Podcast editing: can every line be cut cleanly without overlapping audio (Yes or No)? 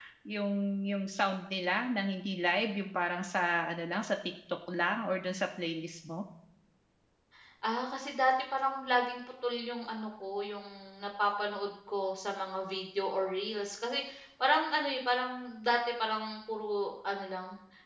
Yes